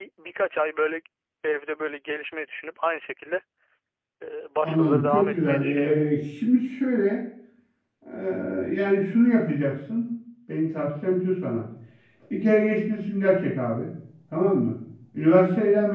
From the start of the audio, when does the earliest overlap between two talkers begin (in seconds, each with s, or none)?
4.6 s